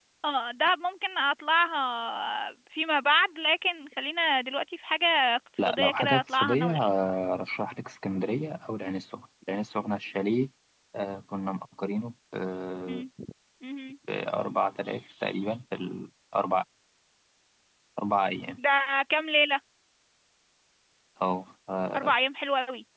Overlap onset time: 5.6 s

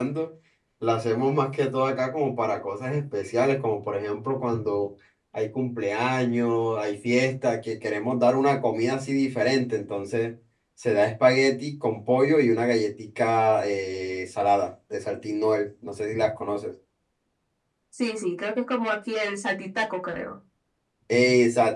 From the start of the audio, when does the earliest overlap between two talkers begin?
none

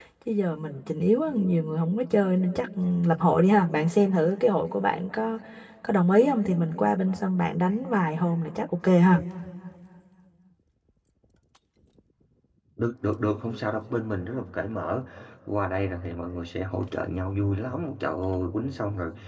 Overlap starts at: none

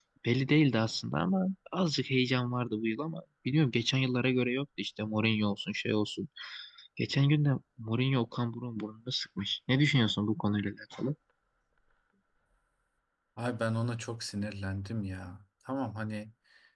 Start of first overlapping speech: none

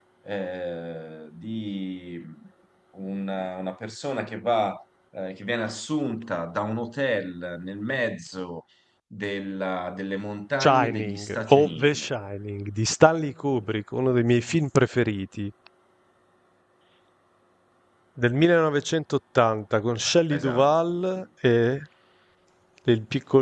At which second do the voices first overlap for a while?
10.6 s

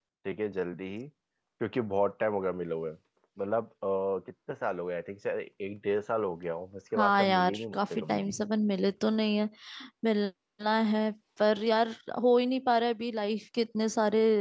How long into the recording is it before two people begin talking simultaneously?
7.0 s

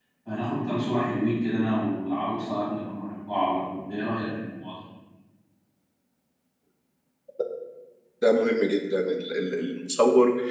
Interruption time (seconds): none

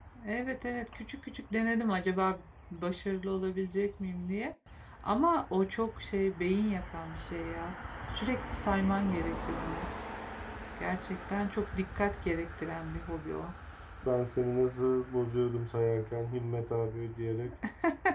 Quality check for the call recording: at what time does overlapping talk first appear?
none

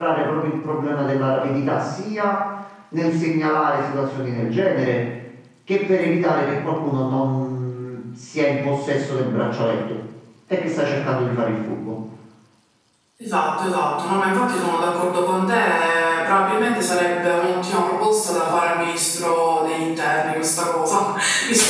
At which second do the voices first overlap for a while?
none

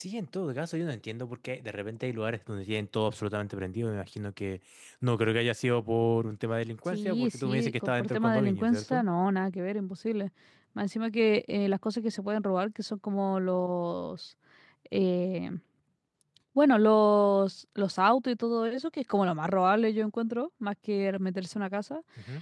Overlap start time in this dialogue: 6.9 s

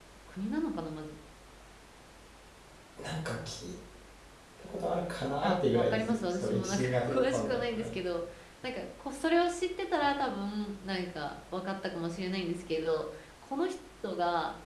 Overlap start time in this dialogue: 5.4 s

